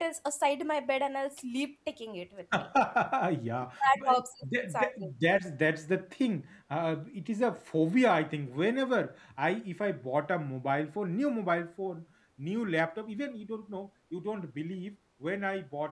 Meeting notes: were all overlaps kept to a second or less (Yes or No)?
No